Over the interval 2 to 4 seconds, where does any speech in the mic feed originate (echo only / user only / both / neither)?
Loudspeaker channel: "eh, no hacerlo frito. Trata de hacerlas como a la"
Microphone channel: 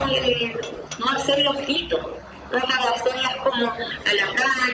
echo only